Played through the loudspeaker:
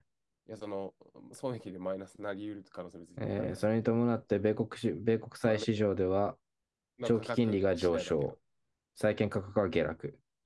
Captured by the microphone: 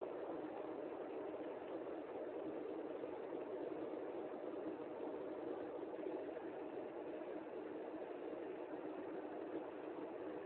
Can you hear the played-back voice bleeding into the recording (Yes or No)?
No